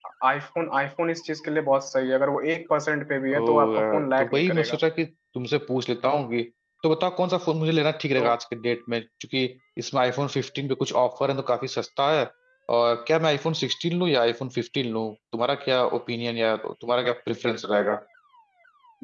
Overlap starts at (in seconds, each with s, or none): 3.3 s